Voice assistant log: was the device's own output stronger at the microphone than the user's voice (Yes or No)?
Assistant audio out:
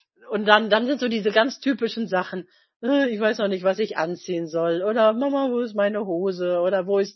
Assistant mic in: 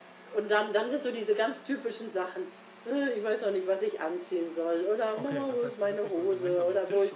Yes